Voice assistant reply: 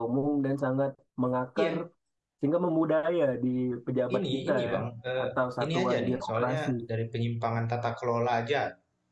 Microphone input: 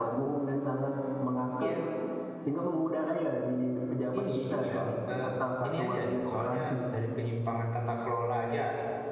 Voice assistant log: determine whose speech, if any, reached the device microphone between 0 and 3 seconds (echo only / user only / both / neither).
echo only